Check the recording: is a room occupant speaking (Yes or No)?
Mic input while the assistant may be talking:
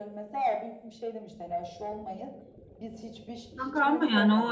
Yes